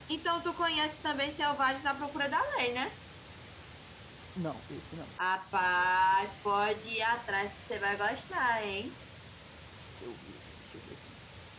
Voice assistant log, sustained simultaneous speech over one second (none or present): none